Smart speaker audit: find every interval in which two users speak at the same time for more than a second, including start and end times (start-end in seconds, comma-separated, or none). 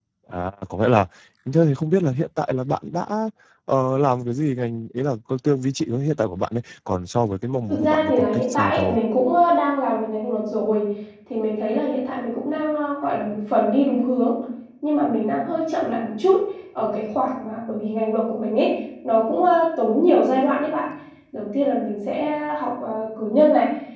7.7-9.0